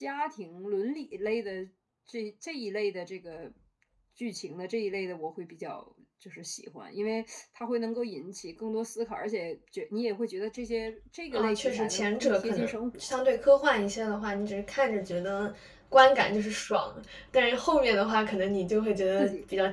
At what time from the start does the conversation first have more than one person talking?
11.3 s

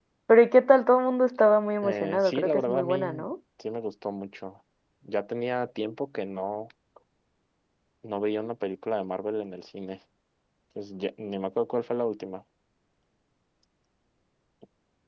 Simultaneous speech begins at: 1.8 s

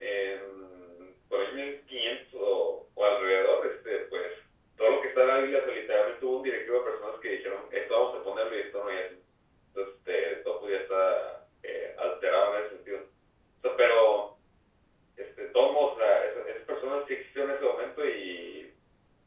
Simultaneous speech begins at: none

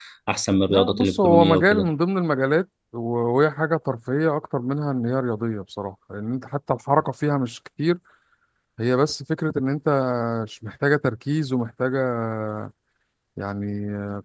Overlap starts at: 0.7 s

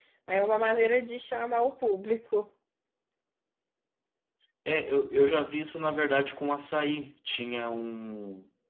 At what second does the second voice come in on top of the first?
none

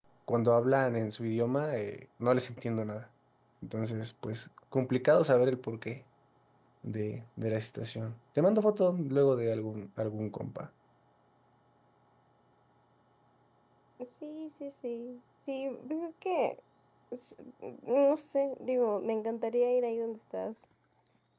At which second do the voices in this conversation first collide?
none

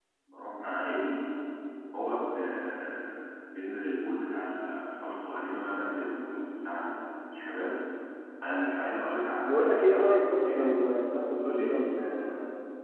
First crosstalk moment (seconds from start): 9.4 s

